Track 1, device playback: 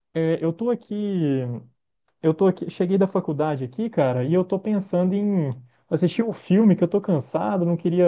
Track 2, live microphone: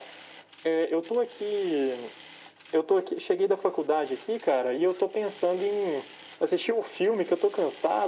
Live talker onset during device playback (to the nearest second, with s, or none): none